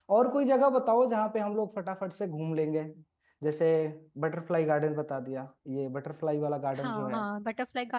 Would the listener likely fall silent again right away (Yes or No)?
No